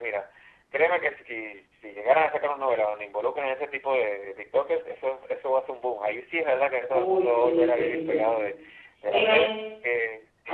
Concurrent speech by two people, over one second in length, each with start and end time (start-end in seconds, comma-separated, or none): 6.9-8.2